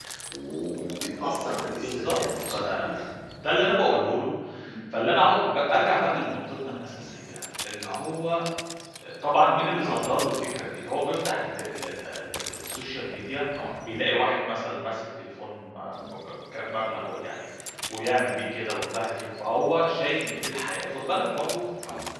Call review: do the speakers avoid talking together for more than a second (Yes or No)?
No